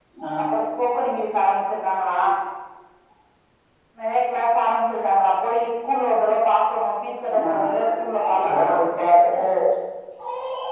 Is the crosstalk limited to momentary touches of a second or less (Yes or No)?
No